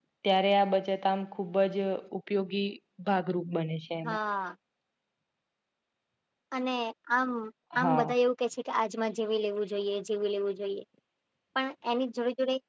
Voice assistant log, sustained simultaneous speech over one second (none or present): none